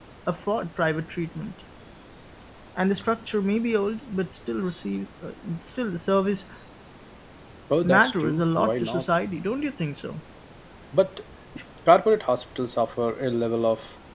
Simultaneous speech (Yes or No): Yes